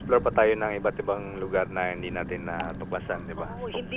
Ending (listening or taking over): taking over